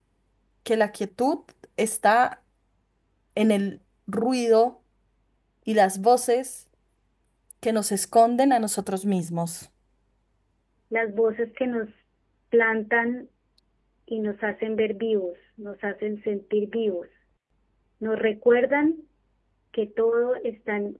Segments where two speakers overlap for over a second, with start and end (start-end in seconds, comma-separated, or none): none